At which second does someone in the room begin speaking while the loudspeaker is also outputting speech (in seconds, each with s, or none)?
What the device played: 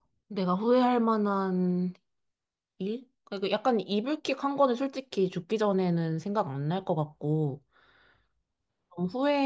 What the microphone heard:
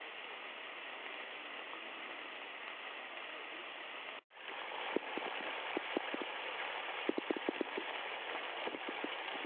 none